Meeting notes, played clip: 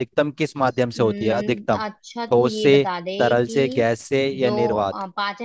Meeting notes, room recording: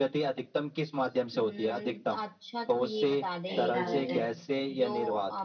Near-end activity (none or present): present